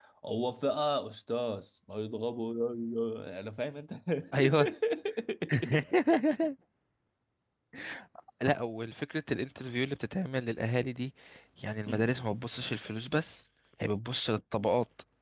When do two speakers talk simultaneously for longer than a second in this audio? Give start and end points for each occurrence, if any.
none

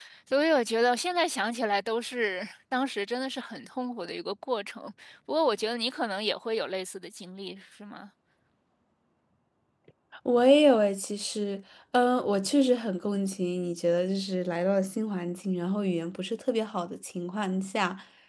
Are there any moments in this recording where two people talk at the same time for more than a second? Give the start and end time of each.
none

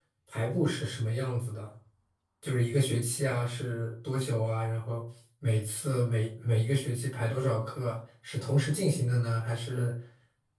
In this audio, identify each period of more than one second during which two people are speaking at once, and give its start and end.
none

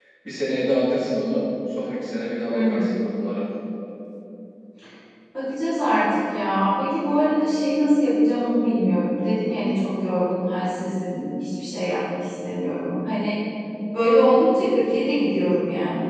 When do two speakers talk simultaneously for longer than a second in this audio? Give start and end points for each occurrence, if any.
none

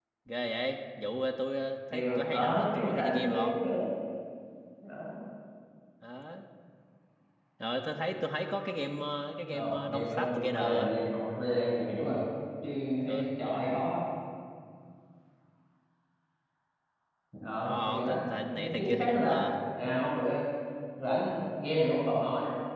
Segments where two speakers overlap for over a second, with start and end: 1.9-3.5, 9.5-10.9, 17.6-19.4

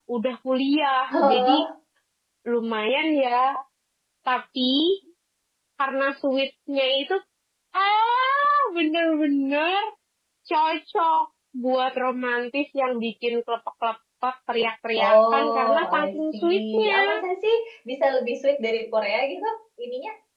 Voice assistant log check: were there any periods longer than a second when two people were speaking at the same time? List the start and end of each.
15.0-16.9

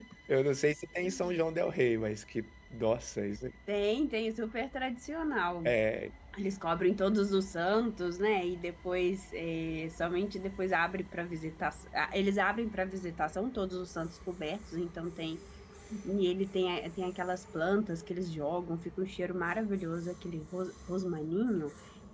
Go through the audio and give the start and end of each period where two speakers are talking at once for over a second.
none

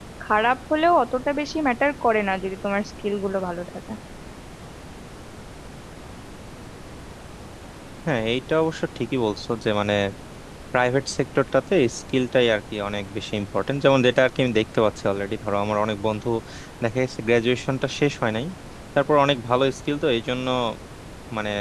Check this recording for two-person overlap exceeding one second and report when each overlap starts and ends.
none

